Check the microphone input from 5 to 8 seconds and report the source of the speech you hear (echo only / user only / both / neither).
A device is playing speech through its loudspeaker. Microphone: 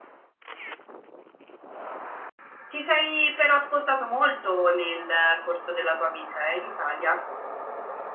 user only